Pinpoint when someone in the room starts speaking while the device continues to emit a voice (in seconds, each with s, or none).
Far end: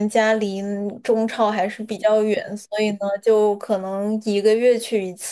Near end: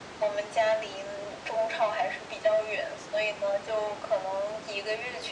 none